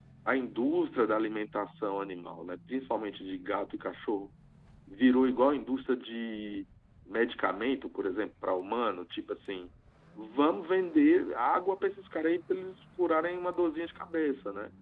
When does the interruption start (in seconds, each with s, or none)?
none